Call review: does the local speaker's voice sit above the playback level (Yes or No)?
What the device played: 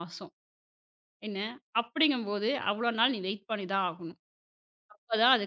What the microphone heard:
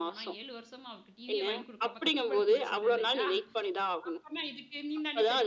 No